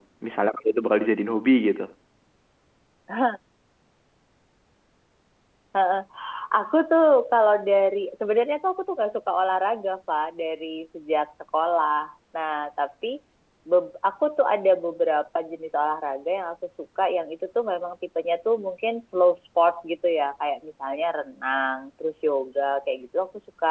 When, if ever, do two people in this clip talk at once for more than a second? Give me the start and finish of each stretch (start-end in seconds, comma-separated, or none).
none